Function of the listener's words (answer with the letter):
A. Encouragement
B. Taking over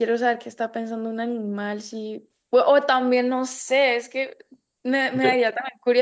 A